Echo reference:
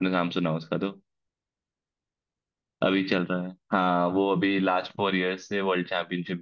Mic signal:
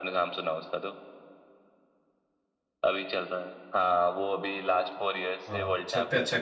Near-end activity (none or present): present